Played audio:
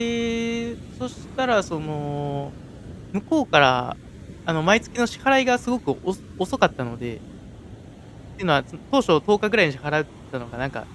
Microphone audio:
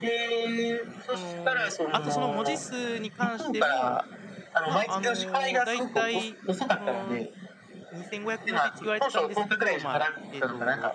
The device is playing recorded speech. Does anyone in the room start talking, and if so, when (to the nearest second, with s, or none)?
1 s